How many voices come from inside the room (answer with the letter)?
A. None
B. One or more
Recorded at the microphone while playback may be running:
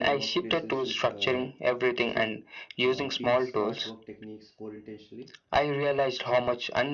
B